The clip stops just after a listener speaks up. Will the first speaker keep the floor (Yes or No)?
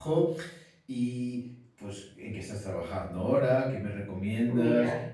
Yes